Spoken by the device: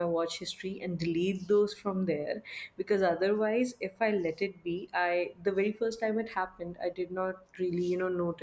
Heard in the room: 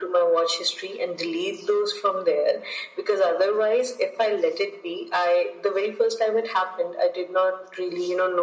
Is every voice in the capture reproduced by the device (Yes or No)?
Yes